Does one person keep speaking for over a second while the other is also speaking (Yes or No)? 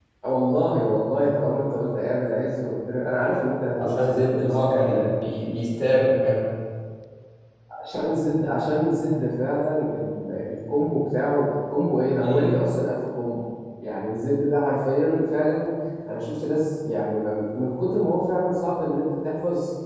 Yes